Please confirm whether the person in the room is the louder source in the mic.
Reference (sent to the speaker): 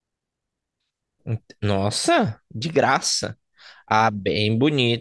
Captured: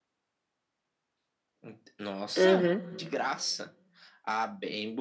Yes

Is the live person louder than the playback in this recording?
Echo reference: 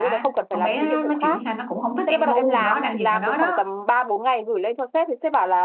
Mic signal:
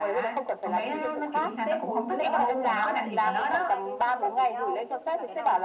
No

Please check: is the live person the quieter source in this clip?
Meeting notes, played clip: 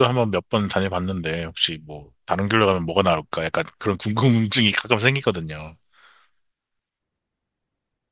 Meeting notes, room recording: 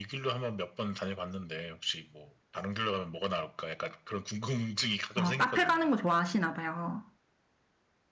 No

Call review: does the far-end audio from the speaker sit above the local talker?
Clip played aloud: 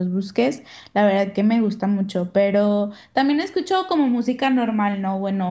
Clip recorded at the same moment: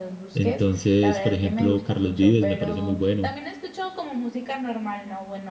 No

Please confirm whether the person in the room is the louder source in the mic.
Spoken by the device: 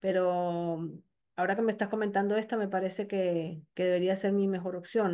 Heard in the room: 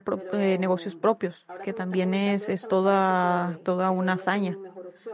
Yes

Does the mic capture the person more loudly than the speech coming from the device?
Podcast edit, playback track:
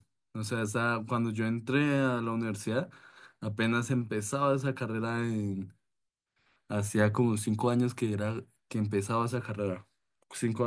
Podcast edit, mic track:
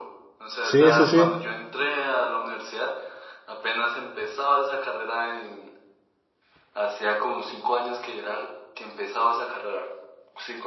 Yes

